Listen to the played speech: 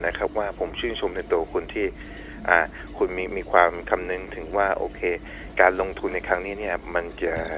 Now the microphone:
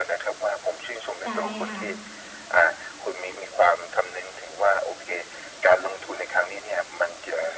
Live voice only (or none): ใช่ค่ะ